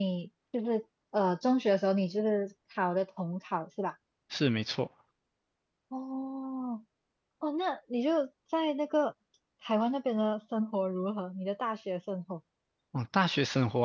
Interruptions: none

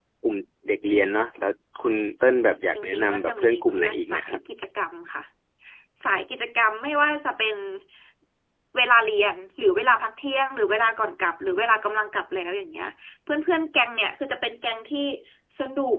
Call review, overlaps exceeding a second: present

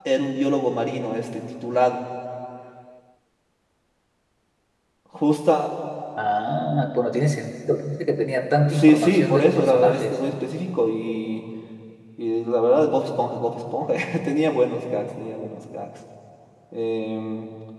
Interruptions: present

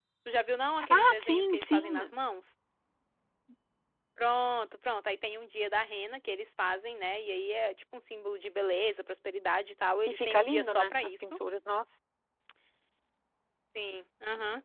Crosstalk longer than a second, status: present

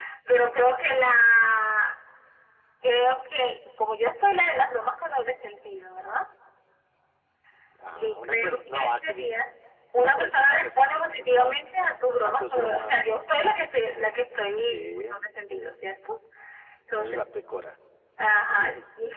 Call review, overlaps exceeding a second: present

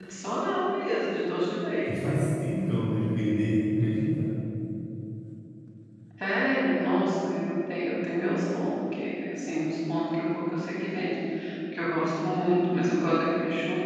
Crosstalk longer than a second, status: none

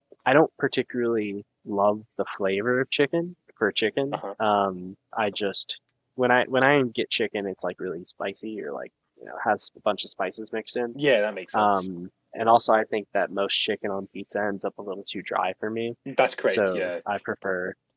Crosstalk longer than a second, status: none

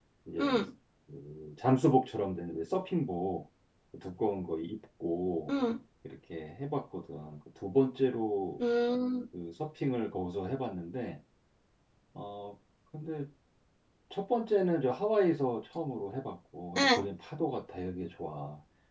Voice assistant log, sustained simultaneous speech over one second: none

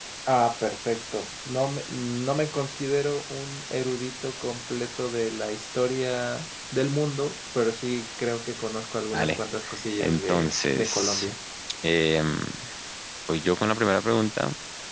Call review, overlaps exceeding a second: present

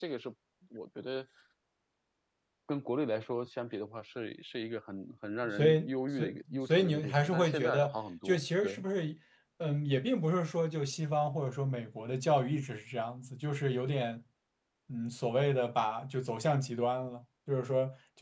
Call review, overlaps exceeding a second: present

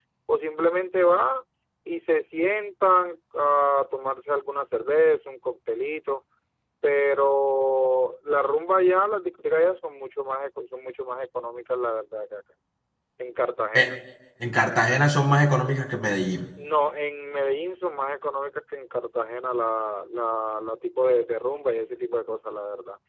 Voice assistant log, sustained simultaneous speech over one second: none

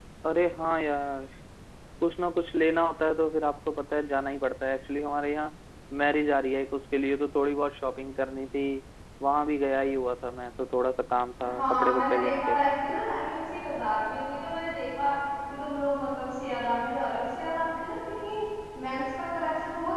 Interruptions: present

